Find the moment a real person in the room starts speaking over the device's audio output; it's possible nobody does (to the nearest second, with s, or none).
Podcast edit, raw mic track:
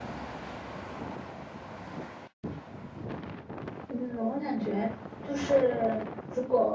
4 s